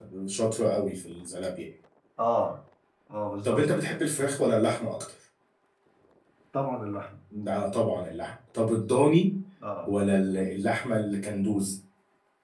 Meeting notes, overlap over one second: none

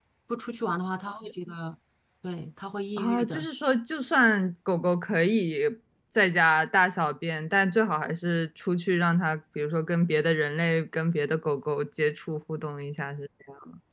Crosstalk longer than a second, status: none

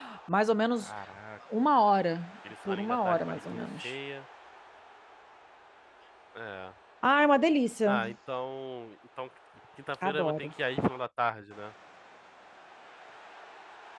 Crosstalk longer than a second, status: present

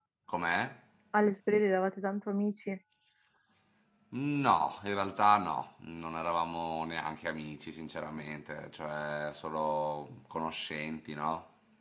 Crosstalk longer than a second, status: none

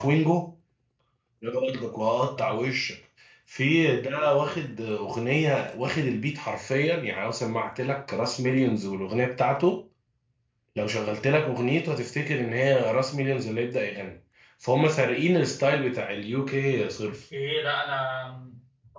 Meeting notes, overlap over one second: none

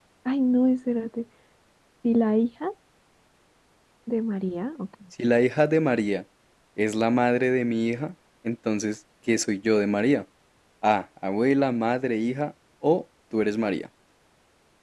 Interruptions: none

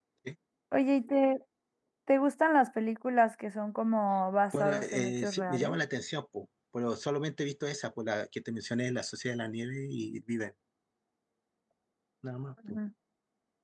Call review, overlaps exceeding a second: present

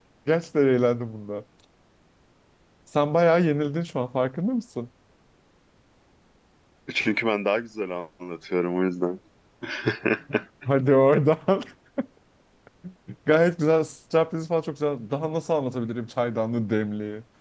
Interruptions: none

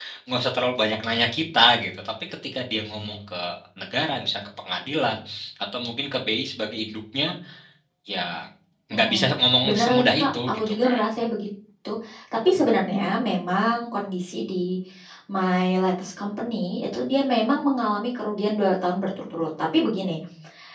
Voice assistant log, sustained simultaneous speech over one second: present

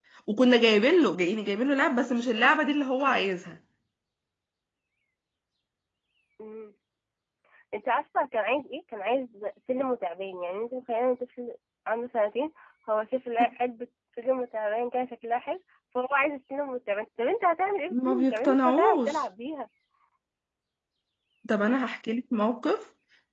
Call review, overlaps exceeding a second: present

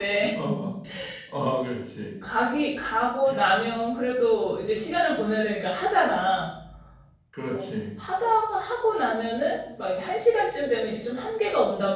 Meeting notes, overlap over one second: none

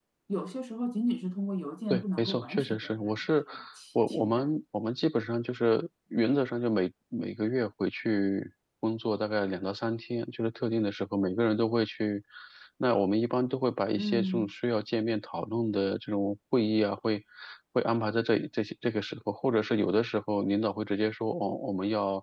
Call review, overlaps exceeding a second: present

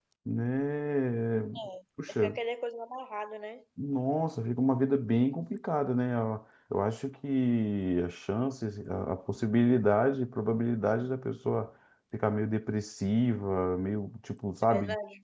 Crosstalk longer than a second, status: none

